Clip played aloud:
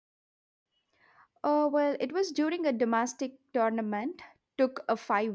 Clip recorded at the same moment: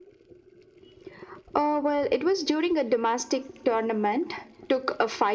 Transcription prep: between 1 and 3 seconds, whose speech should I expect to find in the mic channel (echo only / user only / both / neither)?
echo only